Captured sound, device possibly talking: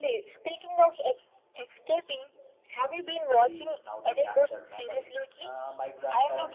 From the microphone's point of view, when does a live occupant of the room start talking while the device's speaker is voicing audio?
3.3 s

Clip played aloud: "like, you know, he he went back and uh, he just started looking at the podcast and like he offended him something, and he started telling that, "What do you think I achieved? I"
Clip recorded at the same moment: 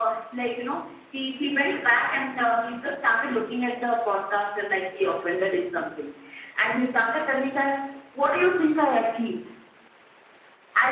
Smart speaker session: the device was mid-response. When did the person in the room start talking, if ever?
none

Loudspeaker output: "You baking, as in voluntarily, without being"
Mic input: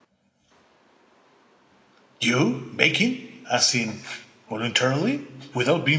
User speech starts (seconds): none

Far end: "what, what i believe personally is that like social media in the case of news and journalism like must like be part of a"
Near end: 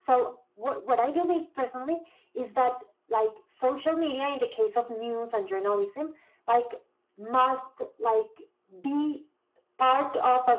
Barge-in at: none

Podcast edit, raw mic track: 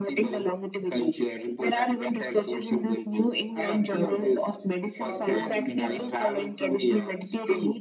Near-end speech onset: 5.0 s

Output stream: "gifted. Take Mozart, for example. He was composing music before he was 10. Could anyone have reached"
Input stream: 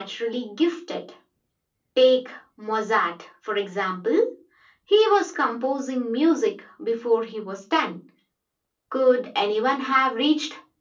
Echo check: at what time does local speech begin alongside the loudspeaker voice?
none

